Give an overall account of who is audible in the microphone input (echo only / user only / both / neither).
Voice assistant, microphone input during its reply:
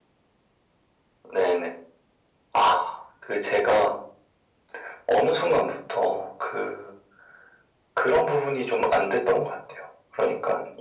echo only